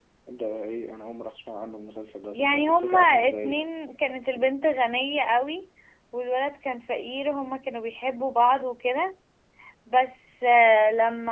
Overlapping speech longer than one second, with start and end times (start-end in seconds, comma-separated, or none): 2.3-4.0